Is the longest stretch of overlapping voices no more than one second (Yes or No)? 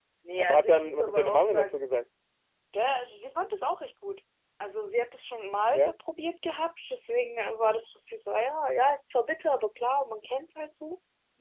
No